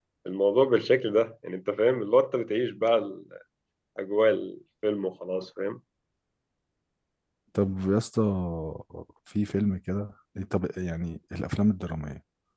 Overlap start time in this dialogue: none

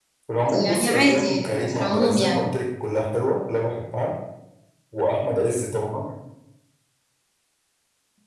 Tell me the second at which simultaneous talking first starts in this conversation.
1 s

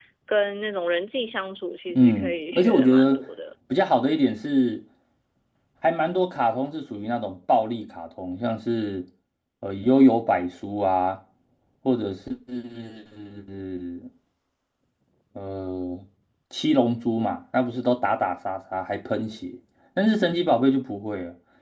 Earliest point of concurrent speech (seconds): 2 s

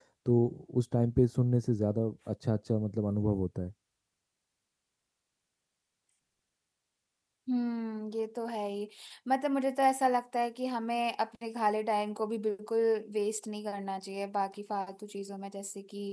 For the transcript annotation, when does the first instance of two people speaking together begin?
none

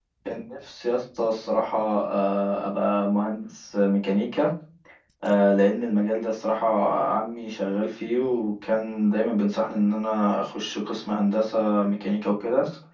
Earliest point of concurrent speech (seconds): none

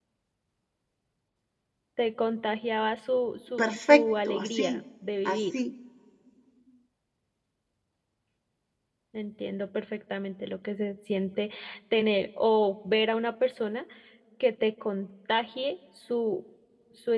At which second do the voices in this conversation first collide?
4 s

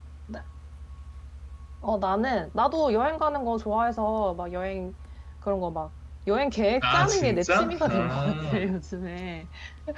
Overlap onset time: 7 s

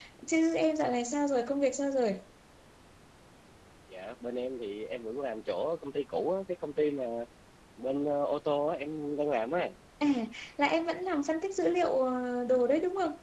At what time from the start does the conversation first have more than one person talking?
none

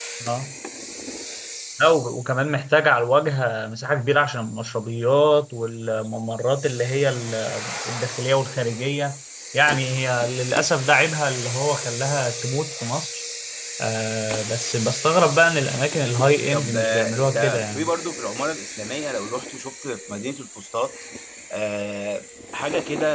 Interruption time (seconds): 17 s

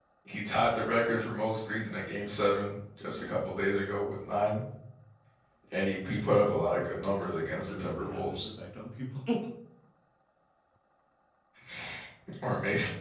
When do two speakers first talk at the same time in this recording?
7 s

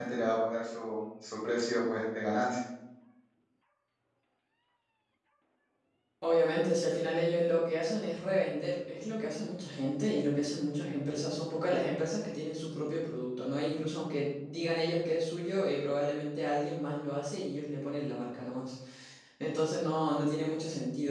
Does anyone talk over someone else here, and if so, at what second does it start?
none

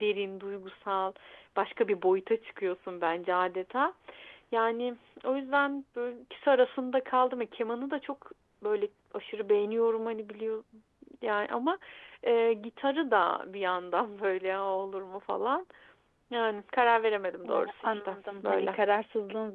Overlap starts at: 17 s

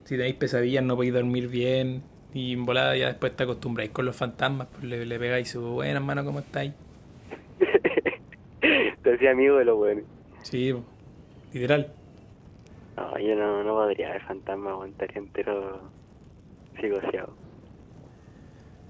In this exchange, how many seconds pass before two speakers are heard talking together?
none

